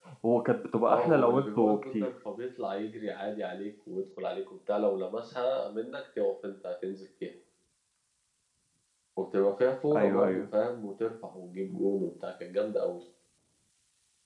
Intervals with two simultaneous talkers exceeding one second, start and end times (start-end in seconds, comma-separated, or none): 0.9-2.1